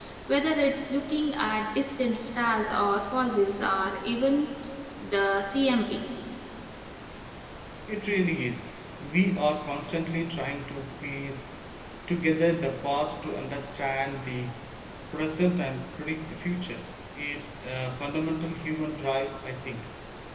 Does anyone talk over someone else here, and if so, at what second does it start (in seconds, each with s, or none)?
none